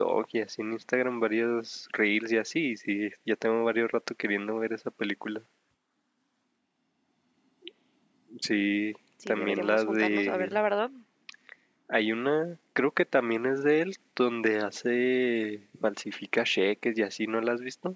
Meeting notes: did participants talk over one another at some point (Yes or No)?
Yes